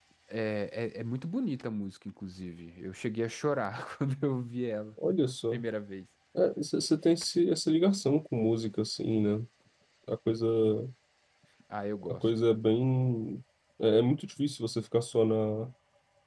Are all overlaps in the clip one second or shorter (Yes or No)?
Yes